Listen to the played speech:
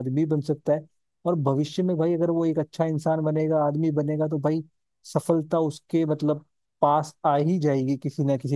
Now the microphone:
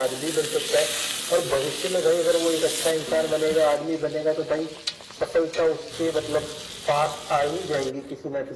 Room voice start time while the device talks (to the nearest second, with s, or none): none